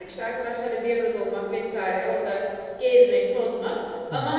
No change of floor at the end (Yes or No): Yes